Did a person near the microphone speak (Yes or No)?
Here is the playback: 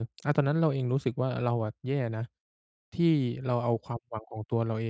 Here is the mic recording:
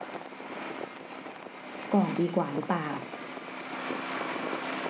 Yes